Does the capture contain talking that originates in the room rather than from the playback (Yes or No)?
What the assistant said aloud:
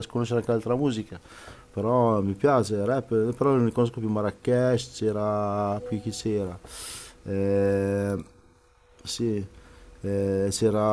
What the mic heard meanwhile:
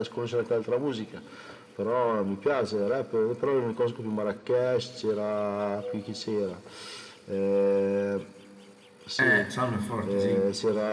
Yes